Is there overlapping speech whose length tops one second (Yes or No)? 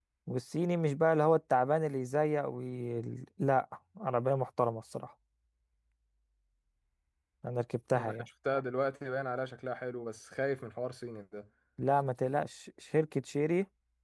No